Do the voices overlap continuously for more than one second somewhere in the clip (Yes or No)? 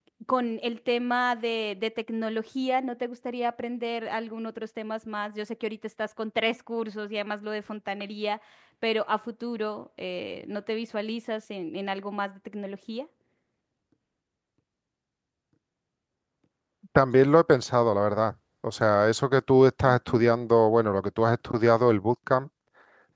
No